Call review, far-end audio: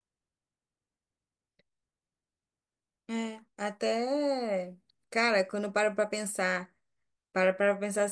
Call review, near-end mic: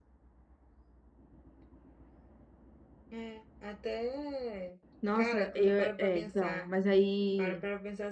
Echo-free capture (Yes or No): No